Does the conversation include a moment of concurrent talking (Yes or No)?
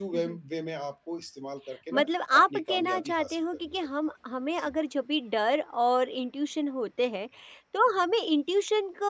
Yes